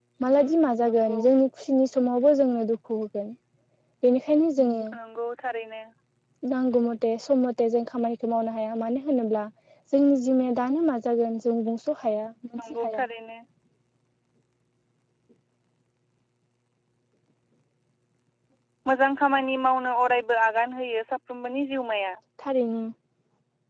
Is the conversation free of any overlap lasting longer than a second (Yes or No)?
Yes